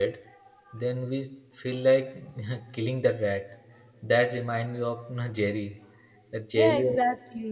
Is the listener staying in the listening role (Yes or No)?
No